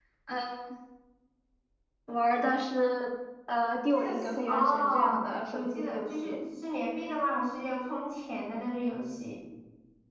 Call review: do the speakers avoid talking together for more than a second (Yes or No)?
No